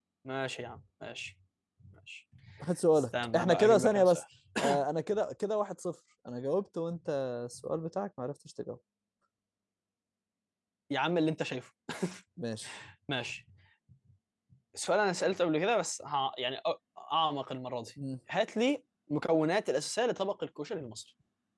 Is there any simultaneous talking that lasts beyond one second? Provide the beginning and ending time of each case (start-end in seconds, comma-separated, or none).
3.0-4.2